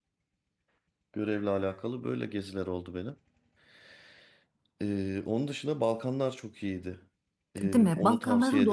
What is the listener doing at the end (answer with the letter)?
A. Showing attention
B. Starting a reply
B